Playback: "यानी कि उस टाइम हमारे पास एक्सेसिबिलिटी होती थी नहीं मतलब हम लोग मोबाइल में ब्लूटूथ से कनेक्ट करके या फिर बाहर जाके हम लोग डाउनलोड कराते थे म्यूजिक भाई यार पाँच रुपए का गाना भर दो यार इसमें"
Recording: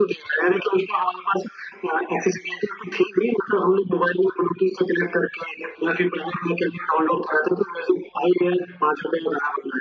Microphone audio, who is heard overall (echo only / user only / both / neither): echo only